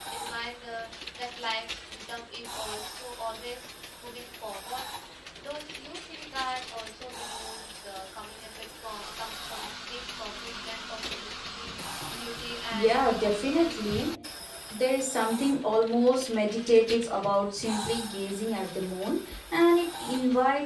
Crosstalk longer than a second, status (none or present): present